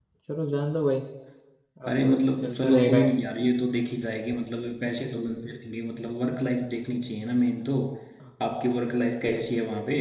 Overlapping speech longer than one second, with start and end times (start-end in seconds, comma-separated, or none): 1.9-3.1